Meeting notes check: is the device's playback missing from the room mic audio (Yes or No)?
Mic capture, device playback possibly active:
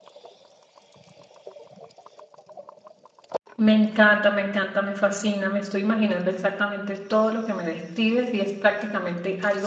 Yes